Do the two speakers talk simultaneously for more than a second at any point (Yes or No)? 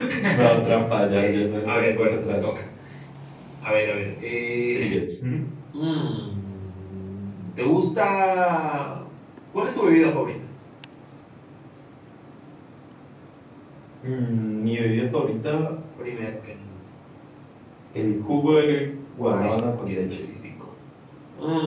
Yes